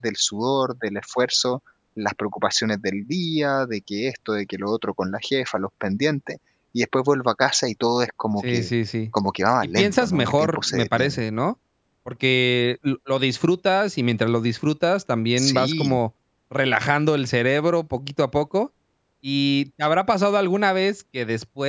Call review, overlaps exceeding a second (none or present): present